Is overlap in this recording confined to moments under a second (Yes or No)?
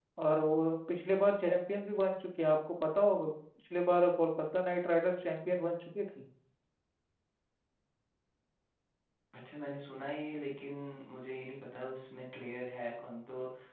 Yes